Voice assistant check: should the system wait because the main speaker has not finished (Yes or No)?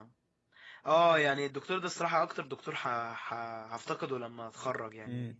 Yes